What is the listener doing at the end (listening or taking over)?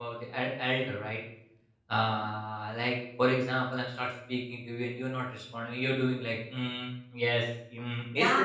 taking over